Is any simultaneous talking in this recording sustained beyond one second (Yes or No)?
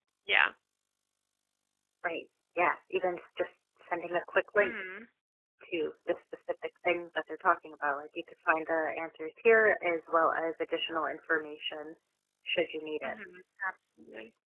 No